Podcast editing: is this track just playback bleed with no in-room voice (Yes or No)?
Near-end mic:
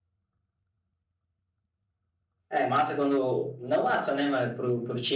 No